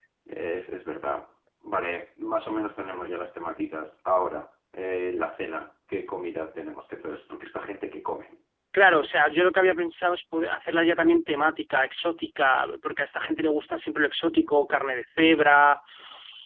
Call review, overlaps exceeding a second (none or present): none